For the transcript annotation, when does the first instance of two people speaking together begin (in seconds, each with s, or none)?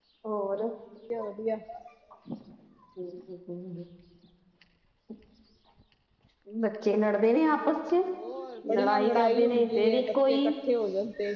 8.8 s